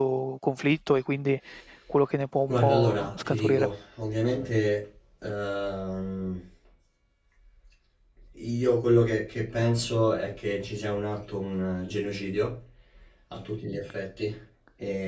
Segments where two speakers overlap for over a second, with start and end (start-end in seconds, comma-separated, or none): 2.5-3.7